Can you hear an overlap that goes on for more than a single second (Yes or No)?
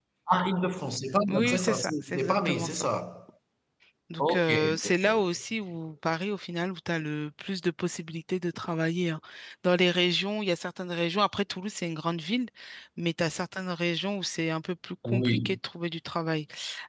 Yes